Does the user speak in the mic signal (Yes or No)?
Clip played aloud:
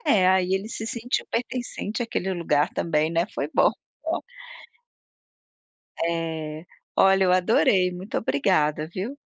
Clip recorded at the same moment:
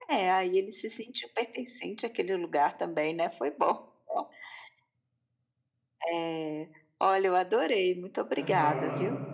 Yes